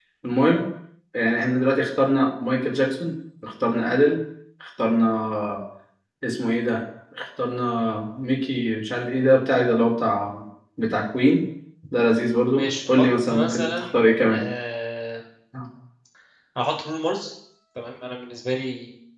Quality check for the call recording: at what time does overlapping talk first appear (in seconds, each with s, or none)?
12.5 s